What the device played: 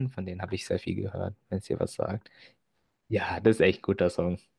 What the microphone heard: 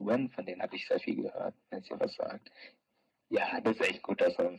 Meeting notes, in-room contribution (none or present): none